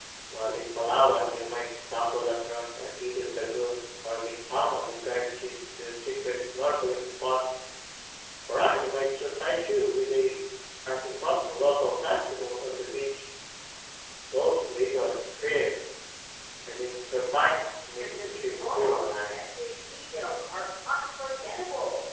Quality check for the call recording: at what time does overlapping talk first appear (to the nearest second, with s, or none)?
18 s